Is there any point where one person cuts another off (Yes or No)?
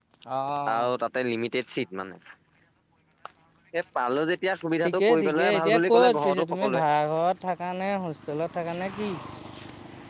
Yes